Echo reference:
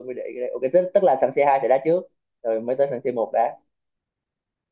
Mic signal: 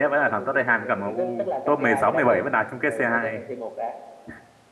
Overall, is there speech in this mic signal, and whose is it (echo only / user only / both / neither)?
both